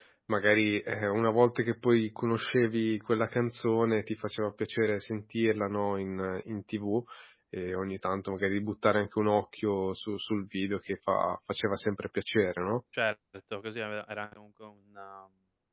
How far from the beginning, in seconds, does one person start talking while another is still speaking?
none

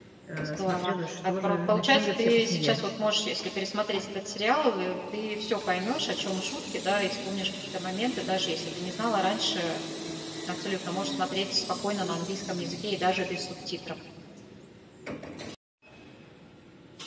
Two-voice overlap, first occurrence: 0.6 s

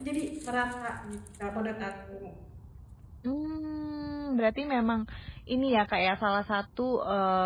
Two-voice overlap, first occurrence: none

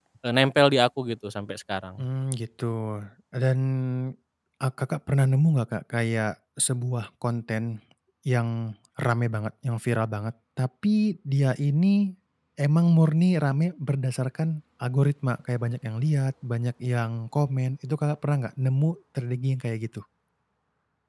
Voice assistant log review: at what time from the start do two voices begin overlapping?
none

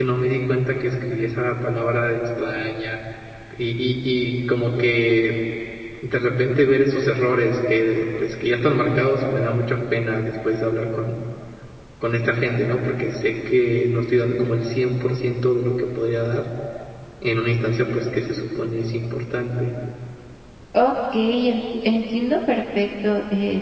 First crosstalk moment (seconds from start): none

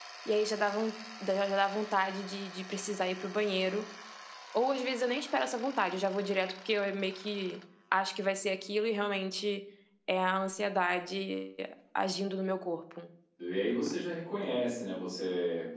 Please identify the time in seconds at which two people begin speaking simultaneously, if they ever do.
none

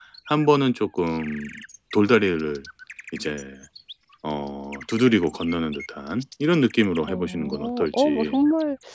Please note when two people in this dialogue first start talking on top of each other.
7.1 s

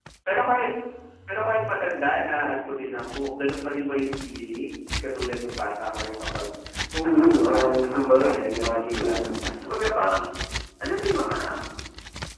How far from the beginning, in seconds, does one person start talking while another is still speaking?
7.0 s

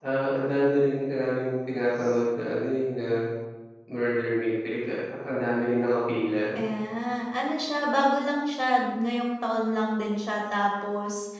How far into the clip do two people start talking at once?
none

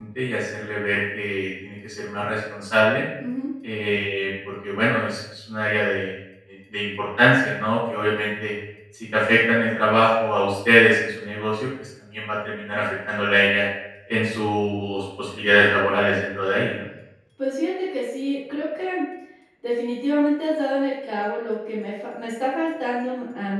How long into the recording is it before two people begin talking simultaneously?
none

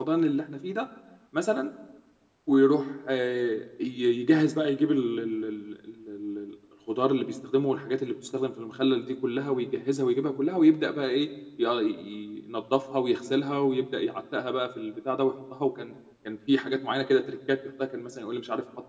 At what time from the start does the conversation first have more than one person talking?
none

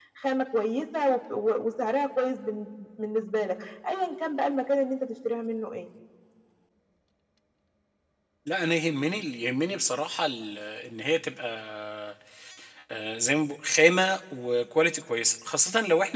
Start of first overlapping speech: none

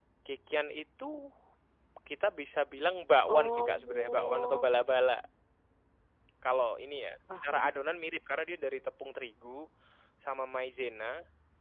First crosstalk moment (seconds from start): 3.3 s

